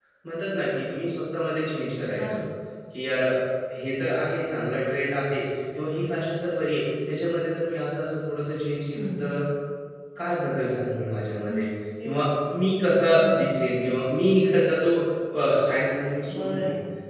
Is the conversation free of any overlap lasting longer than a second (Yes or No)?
Yes